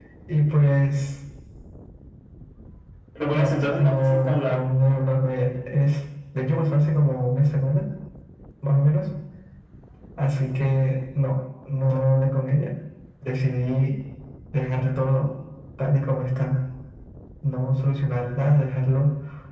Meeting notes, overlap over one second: present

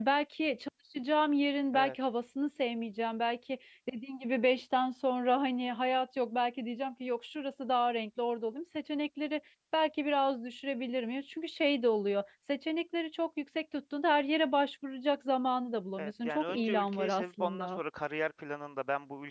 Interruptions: present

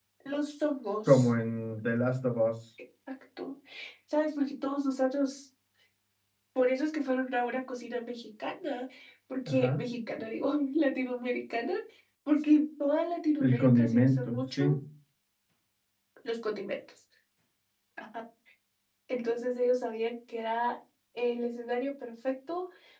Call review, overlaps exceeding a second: present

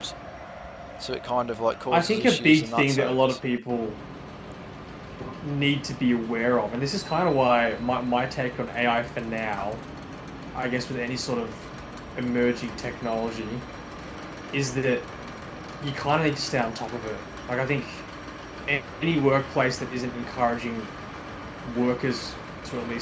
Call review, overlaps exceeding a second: present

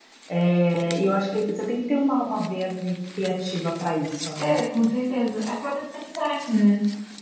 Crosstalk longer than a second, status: none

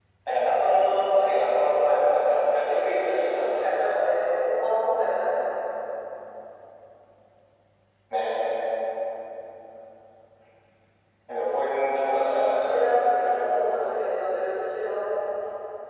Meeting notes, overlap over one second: present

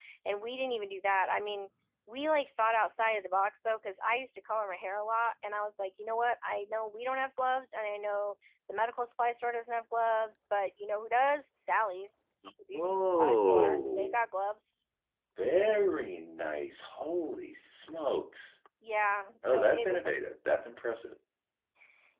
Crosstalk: present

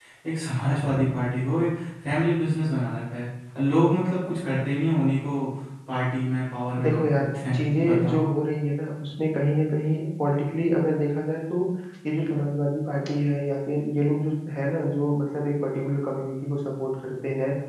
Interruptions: present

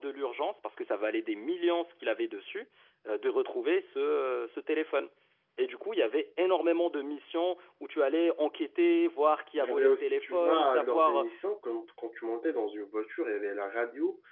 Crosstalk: present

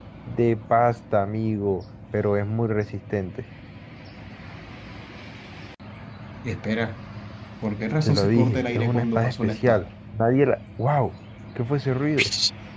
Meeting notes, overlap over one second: present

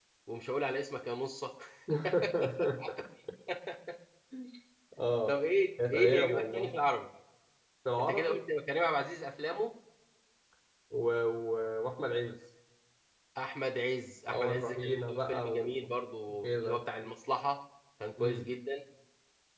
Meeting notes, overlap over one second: present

